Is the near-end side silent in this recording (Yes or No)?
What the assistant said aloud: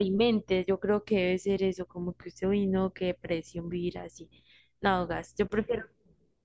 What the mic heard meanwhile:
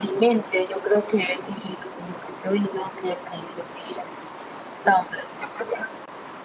Yes